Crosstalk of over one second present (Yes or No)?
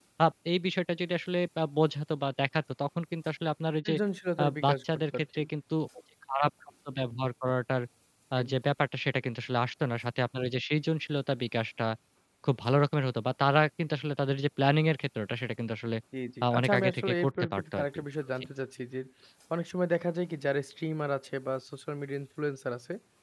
Yes